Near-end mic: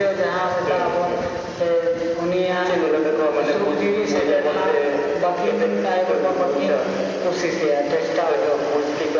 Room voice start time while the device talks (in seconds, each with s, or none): none